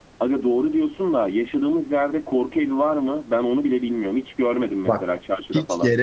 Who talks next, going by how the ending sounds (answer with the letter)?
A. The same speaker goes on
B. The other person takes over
B